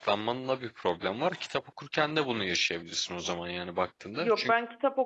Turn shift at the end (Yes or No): Yes